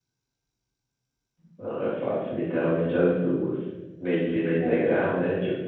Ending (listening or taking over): listening